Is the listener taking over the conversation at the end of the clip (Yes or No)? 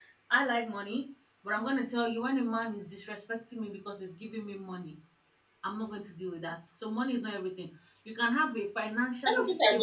Yes